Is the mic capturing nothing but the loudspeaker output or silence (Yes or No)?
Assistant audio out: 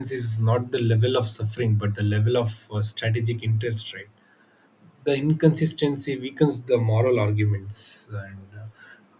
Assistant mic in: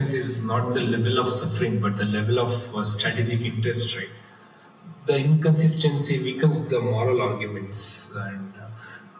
Yes